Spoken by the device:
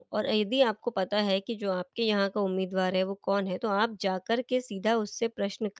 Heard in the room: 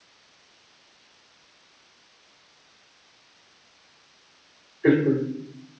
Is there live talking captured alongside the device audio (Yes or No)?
Yes